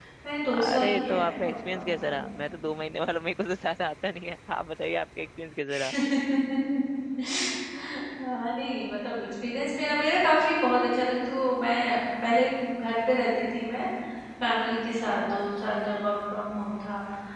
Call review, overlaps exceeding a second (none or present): present